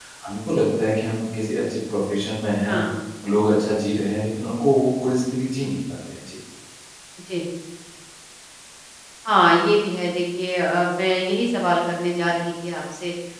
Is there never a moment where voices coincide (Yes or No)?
Yes